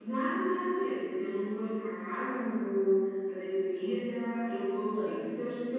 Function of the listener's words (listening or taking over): listening